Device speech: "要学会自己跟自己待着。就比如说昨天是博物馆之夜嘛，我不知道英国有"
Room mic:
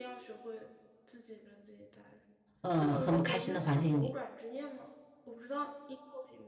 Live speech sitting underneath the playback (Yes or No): No